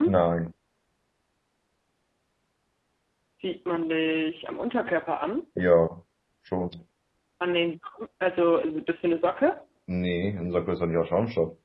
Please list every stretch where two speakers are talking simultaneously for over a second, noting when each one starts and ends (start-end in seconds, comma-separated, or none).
none